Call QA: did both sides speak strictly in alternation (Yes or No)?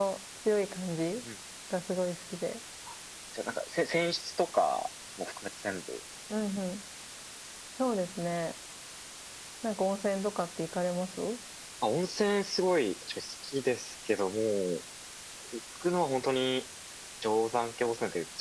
Yes